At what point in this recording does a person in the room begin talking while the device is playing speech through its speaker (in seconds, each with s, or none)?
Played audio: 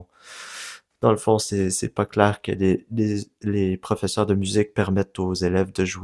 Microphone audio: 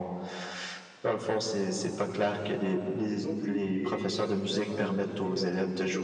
3.2 s